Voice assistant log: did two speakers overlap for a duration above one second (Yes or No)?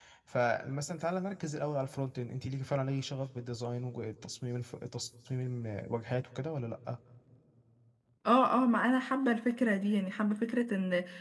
No